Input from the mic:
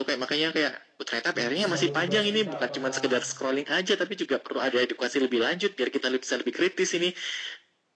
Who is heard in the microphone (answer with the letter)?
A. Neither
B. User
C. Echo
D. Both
D